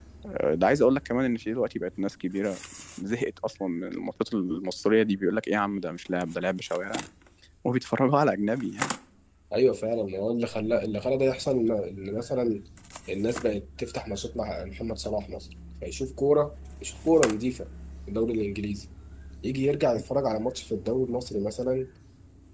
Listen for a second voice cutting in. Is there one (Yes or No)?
No